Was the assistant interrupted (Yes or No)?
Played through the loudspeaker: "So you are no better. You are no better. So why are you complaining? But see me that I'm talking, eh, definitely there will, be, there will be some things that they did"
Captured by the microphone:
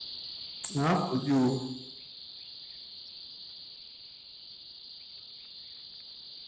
Yes